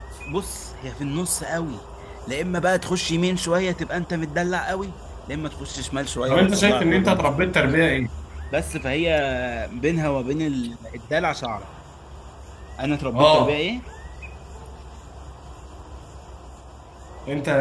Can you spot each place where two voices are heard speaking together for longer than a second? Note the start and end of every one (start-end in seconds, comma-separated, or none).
6.3-7.5